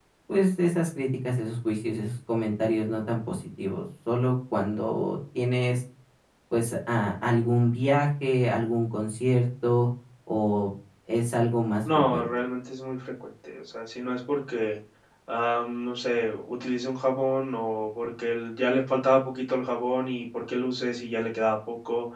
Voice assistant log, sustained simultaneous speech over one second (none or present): none